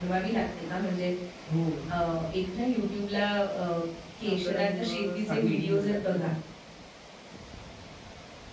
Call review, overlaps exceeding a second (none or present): present